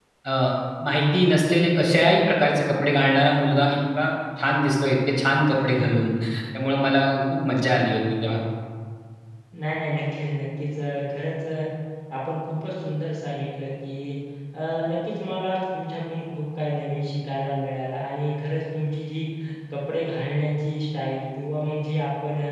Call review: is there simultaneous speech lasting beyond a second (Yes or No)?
No